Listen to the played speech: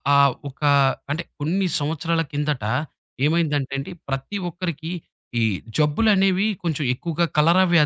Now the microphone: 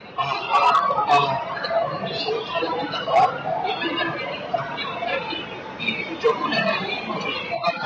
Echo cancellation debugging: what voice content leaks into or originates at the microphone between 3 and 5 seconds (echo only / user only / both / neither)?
echo only